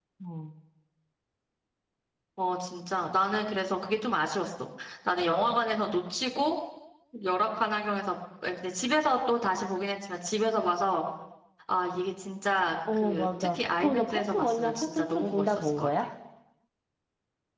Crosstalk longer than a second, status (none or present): present